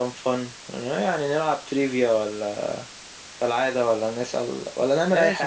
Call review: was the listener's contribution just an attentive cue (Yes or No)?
No